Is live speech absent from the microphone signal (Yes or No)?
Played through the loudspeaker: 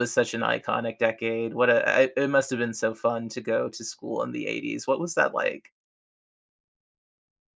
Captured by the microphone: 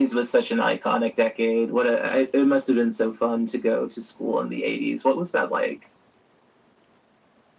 Yes